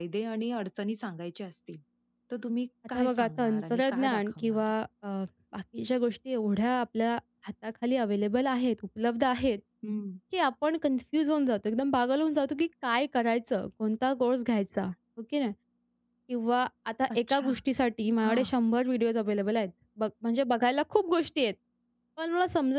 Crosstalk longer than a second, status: present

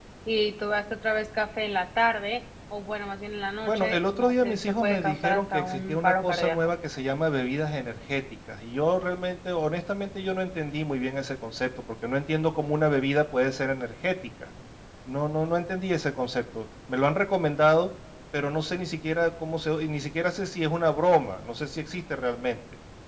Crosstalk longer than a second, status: present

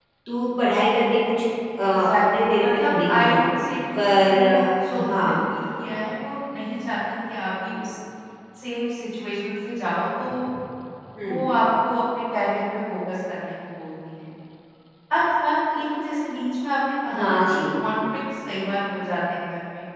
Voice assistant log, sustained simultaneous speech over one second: present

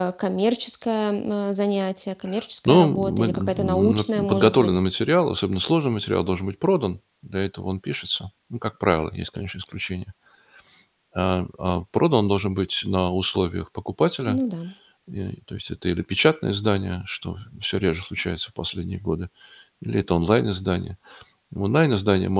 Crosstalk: present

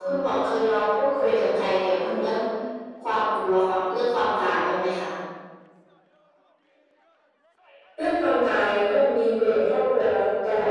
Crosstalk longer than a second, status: none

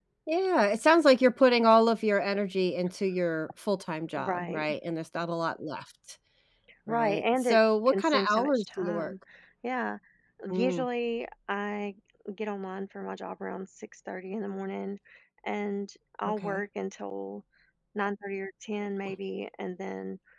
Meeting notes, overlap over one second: present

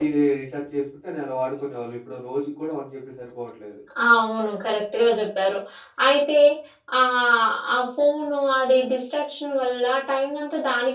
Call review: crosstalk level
none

